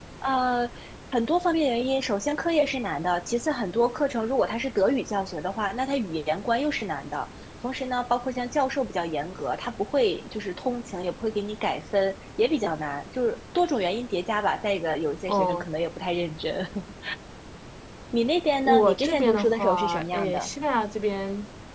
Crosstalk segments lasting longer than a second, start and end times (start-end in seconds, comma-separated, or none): 18.6-20.5